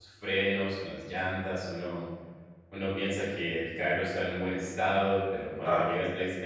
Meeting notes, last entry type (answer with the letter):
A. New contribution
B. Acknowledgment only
B